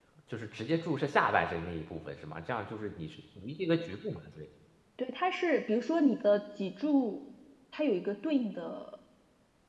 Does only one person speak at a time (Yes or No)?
Yes